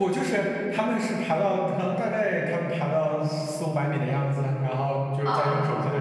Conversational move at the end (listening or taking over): listening